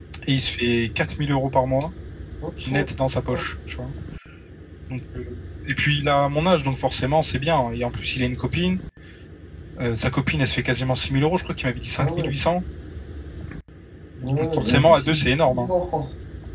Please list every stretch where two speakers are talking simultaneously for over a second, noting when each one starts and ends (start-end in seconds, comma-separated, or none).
14.4-15.7